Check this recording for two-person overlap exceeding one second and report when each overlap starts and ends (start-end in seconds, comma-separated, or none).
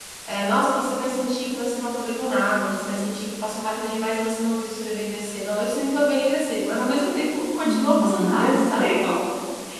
7.6-8.9